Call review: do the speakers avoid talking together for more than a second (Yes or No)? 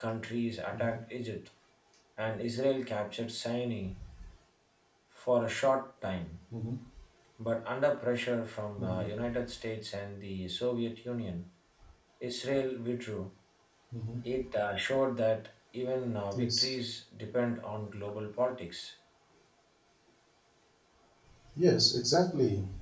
Yes